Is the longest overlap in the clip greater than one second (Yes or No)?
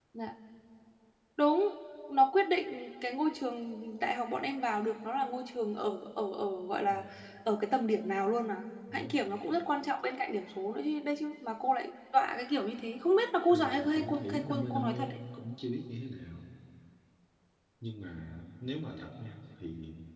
Yes